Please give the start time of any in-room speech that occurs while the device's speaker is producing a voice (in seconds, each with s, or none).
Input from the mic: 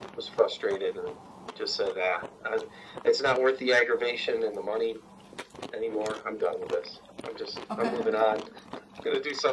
7.7 s